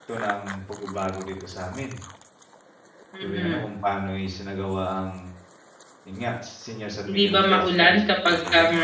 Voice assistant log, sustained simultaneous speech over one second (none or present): present